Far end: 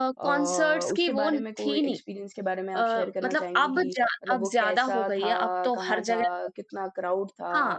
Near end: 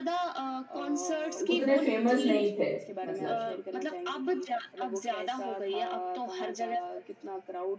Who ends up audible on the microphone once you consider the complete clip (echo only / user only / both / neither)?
both